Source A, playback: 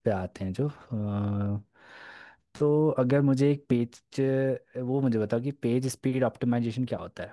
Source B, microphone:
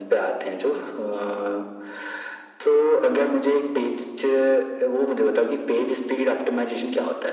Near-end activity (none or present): none